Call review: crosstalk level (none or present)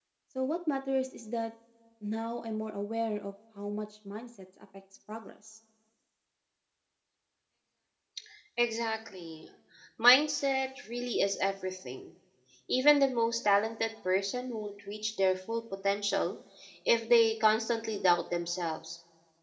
none